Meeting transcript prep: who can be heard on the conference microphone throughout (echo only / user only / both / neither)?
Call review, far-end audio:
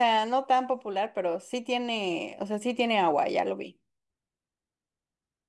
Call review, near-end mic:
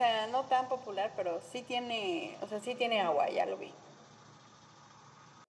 echo only